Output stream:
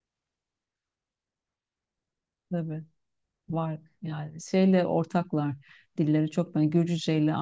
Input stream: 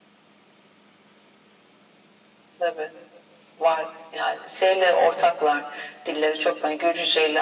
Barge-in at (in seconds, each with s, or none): none